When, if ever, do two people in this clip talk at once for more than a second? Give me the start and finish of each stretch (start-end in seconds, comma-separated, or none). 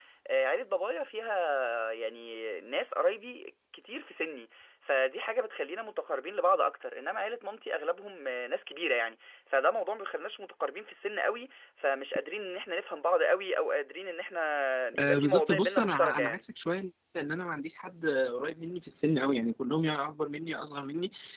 15.0-16.4